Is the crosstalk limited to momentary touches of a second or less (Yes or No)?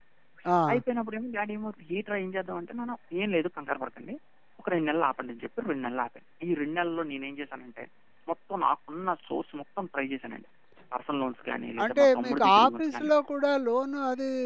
No